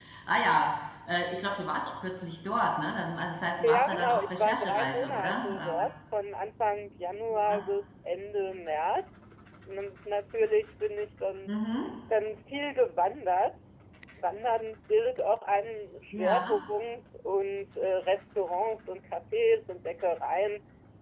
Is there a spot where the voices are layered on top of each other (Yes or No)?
Yes